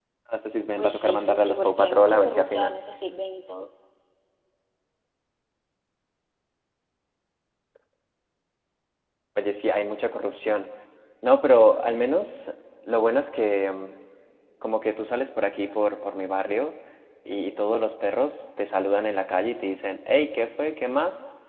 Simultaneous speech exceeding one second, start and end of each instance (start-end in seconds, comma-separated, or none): 0.7-2.8